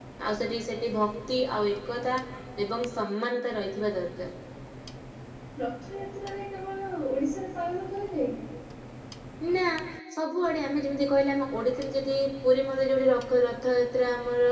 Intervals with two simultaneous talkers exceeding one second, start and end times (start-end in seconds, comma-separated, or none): none